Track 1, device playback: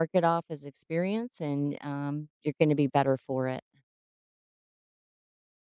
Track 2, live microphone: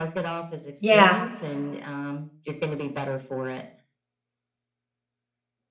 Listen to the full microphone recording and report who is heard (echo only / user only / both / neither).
both